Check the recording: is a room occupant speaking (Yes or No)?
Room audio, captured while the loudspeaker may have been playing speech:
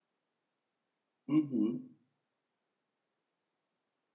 Yes